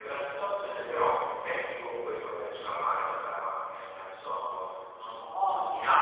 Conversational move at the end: listening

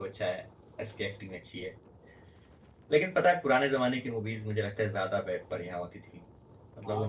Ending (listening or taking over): taking over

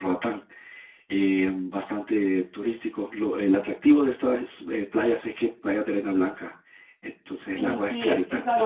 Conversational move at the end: taking over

